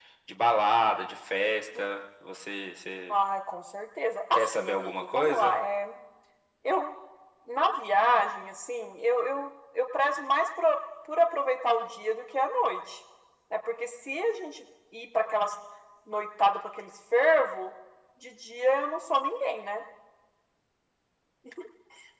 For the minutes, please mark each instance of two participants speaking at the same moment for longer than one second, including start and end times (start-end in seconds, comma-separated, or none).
4.3-5.6